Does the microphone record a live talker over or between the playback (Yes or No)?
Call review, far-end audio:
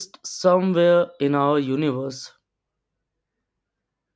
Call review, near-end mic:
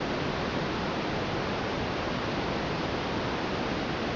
No